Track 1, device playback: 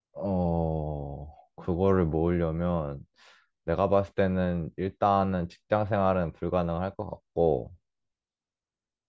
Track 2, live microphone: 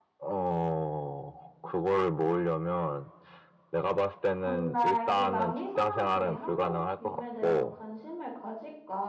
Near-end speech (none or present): present